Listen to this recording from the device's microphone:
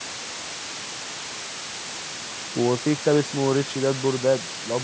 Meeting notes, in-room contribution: present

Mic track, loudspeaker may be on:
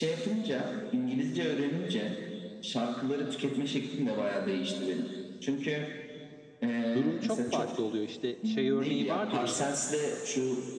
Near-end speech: present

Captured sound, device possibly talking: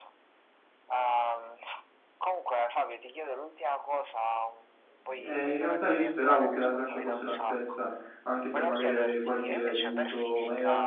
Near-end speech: present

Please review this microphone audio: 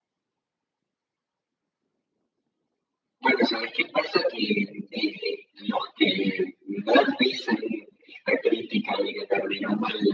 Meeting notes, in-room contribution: none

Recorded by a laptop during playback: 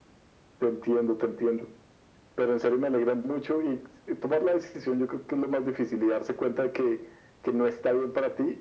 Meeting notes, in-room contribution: none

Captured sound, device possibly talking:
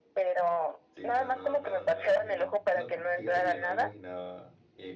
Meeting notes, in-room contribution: present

